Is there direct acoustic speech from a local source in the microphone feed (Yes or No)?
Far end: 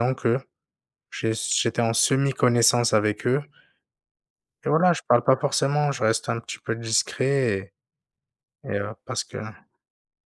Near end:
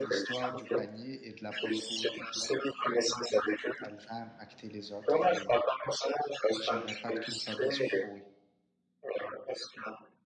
Yes